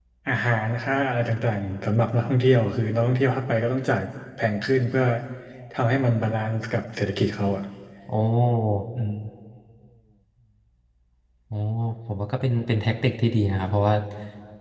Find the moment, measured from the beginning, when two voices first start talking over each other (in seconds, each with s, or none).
none